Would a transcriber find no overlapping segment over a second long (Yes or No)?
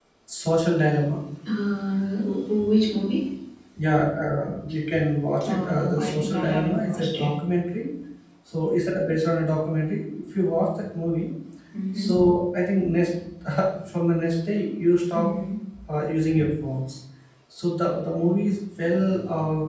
No